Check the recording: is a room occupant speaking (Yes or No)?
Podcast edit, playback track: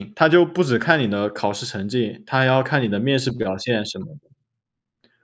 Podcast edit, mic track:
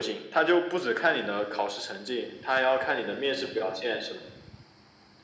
No